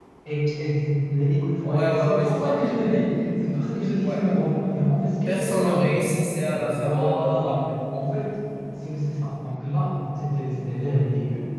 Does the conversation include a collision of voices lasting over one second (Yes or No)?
Yes